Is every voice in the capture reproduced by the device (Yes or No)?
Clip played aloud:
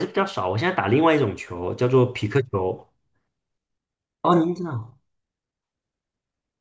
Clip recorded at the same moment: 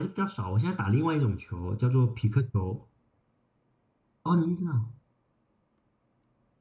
Yes